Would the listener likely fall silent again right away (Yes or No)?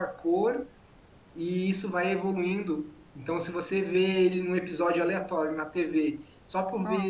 Yes